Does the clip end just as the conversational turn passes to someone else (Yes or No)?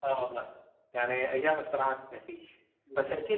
No